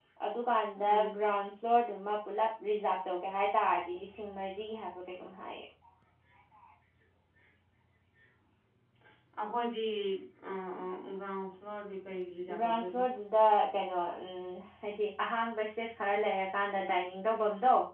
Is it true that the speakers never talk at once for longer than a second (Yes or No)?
Yes